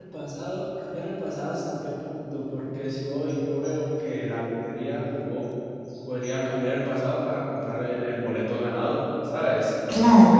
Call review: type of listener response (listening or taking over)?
listening